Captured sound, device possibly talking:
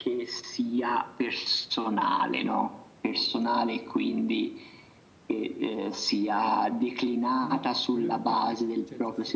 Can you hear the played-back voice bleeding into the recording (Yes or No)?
Yes